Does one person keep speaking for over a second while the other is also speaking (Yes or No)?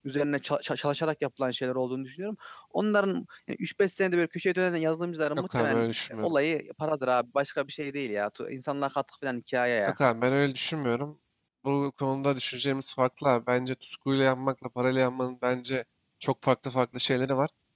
No